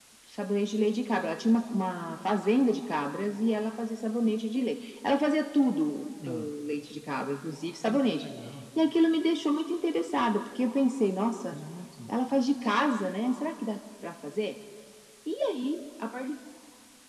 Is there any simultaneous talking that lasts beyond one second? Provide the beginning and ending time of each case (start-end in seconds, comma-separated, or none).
none